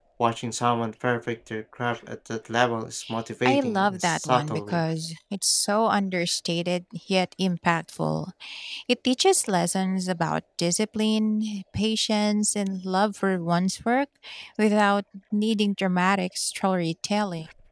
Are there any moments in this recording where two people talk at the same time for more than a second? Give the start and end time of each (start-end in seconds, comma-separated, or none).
3.5-4.8